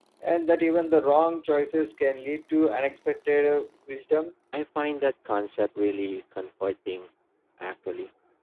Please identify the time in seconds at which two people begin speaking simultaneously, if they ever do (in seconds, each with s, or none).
none